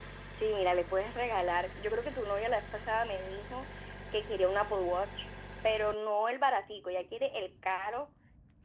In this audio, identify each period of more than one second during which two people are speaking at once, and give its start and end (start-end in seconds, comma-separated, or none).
none